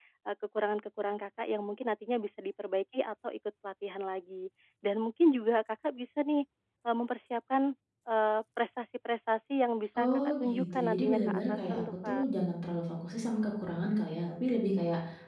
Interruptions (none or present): present